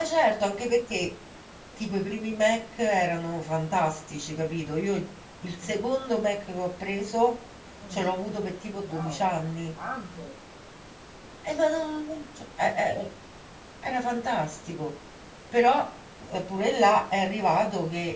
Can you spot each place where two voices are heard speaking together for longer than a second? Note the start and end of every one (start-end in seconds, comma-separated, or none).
none